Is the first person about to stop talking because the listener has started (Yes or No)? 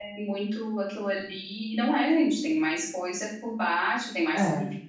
No